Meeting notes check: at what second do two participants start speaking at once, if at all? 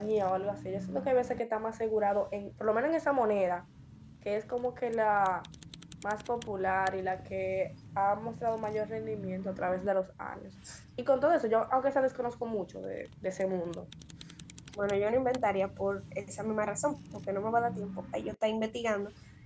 none

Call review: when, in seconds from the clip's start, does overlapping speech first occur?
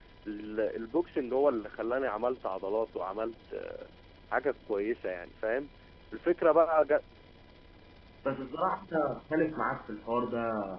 none

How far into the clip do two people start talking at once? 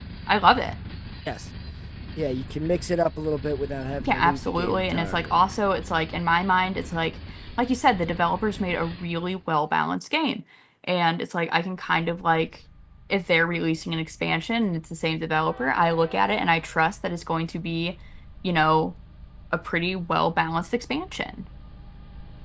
4.0 s

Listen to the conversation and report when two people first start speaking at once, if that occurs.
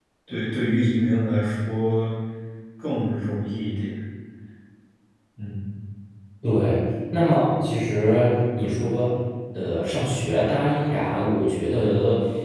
none

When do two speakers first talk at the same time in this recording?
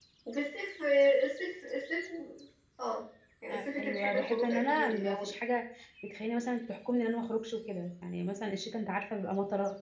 3.8 s

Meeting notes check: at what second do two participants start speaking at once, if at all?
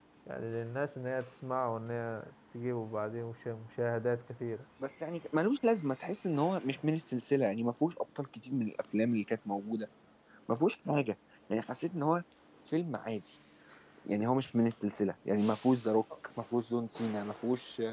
none

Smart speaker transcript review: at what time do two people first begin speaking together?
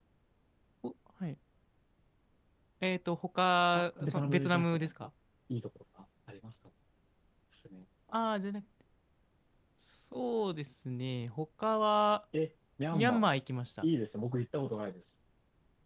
3.7 s

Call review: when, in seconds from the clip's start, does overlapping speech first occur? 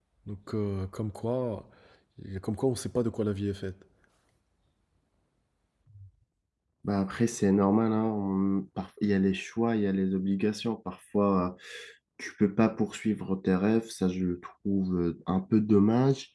none

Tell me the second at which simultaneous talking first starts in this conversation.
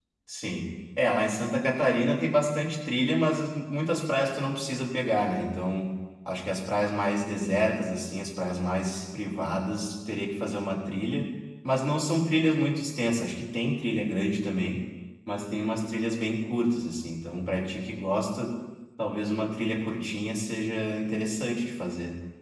none

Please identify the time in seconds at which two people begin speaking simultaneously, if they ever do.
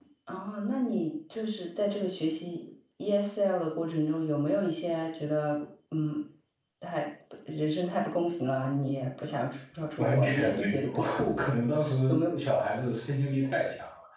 10.0 s

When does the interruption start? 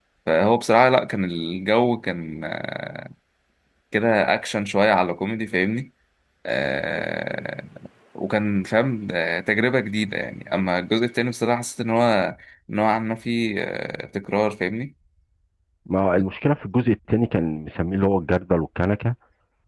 none

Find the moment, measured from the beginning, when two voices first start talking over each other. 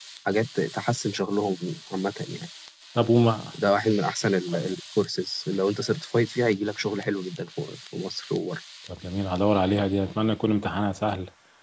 none

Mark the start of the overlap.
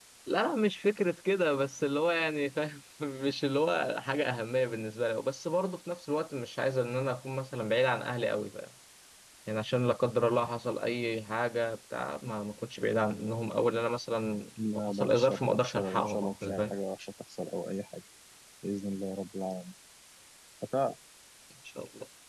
14.6 s

